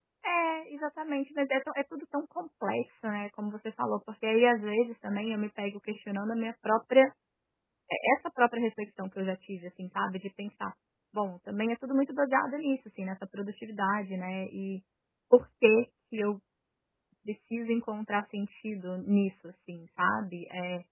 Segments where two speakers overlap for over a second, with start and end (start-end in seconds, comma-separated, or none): none